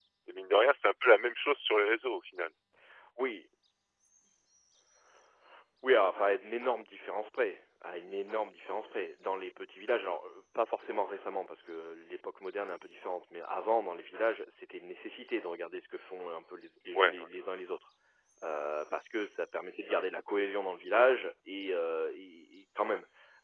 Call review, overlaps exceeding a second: none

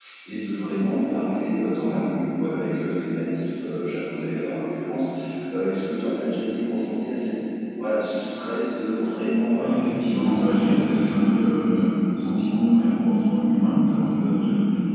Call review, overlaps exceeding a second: present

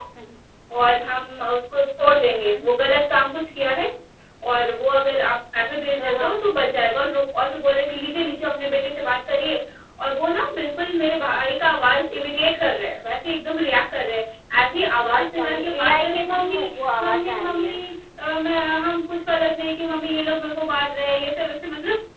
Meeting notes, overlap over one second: present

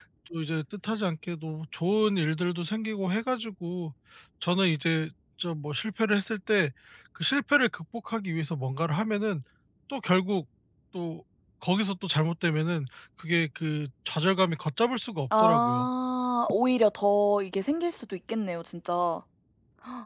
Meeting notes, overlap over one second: none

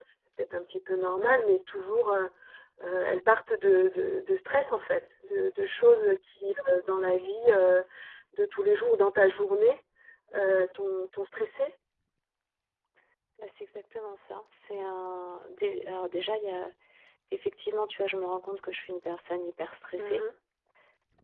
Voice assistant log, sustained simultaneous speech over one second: none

